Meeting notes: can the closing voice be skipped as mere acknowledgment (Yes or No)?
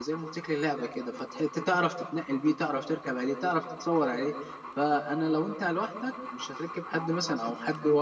Yes